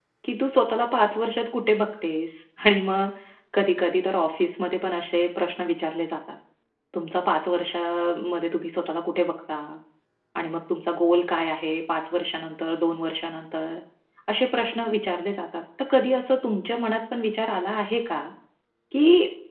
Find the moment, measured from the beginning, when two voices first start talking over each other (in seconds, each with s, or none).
none